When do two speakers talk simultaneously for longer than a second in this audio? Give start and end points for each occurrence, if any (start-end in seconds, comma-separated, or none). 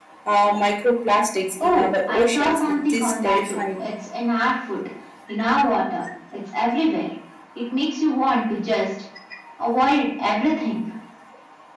1.6-3.9